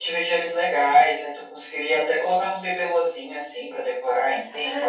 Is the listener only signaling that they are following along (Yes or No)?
No